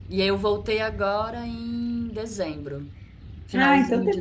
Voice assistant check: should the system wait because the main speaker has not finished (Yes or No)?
No